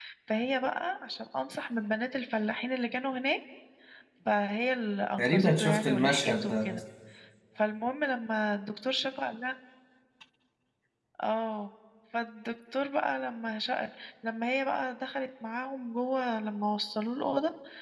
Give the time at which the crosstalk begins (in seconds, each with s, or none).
5.2 s